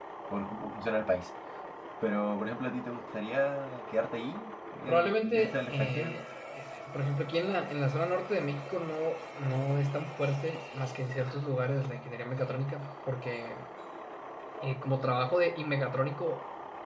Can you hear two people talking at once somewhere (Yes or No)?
Yes